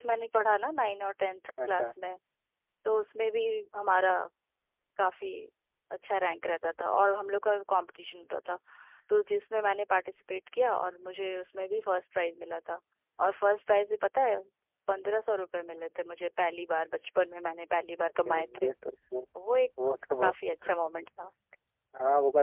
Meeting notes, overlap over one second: none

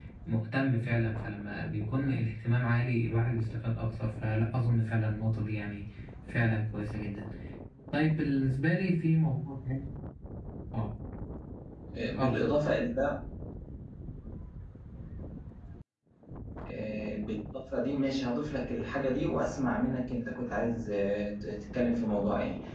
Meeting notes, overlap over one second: none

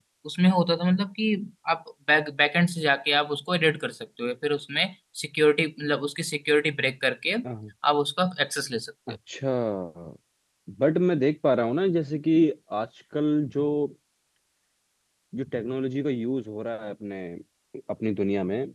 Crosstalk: none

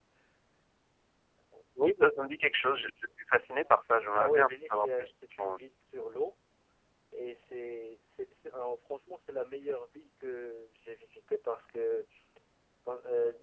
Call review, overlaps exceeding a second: present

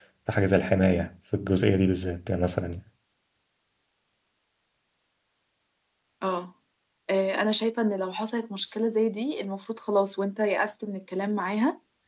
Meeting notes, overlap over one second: none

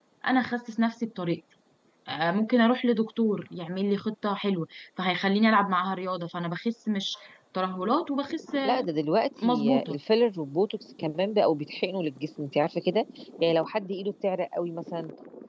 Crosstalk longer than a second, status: none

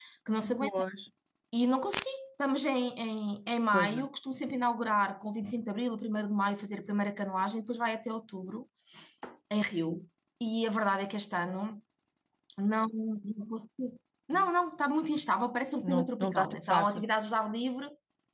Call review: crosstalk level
present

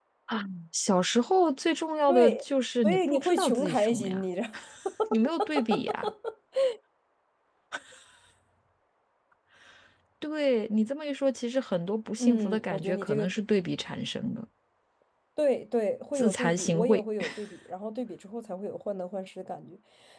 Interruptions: present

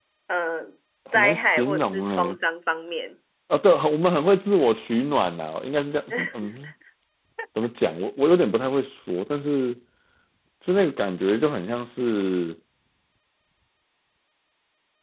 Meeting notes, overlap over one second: present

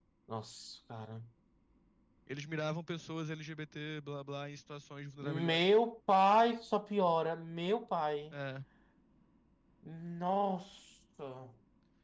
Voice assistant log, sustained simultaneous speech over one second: none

